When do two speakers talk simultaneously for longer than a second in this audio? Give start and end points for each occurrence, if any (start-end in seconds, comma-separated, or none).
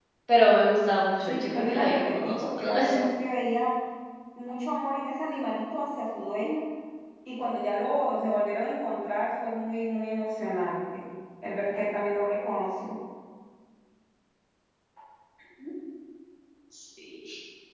1.2-3.1